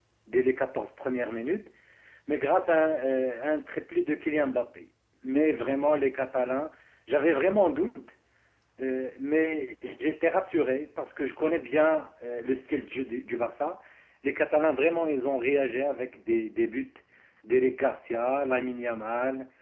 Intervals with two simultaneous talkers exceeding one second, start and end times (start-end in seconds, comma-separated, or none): none